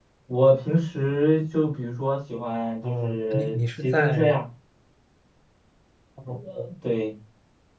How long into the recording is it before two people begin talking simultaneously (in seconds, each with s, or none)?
2.8 s